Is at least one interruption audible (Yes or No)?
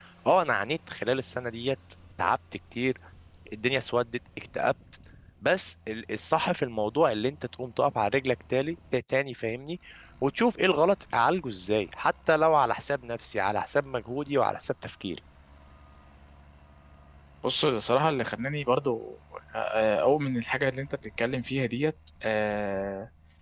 No